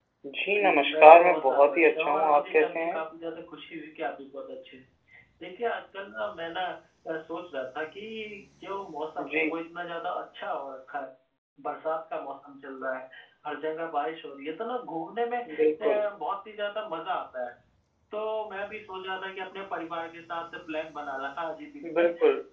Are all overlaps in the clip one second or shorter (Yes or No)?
No